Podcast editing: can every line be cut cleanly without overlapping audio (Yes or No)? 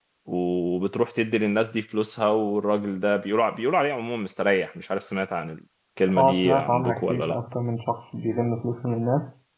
No